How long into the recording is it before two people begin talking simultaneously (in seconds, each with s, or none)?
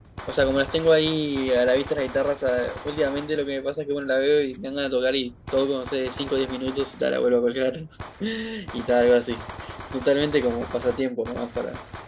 none